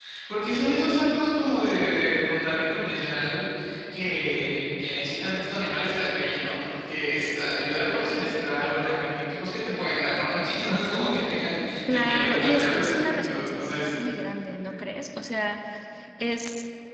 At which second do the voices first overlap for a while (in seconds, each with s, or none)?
11.9 s